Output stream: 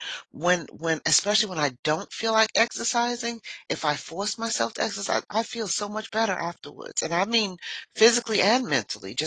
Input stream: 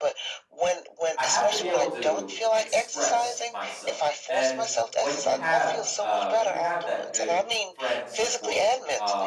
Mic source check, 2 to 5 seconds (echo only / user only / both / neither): both